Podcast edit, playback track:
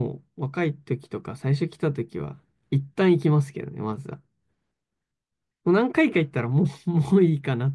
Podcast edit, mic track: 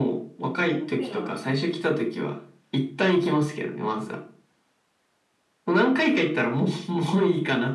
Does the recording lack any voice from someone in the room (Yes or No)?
No